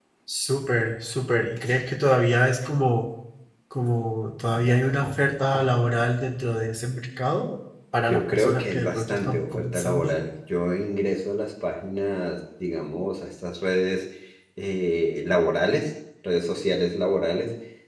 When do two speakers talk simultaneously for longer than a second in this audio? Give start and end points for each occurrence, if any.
8.1-10.1

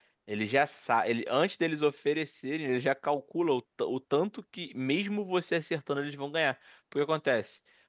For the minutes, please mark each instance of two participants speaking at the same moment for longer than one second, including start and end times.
none

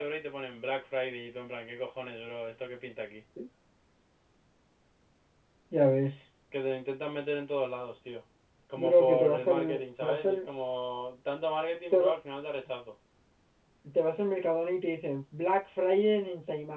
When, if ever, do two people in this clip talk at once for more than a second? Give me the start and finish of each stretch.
8.8-10.4

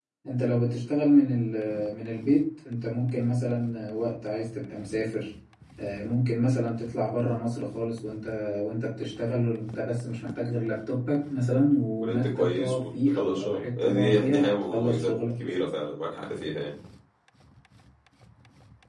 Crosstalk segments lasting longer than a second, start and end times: 12.0-15.1

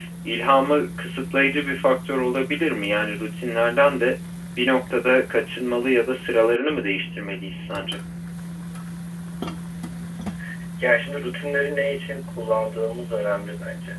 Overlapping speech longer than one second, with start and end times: none

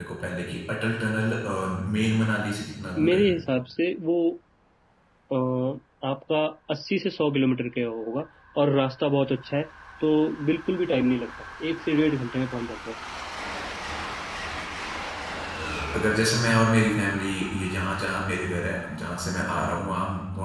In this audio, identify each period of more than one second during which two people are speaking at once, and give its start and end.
none

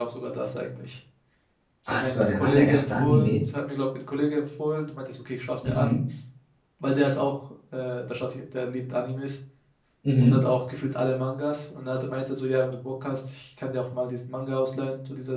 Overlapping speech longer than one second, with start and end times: 1.9-3.4

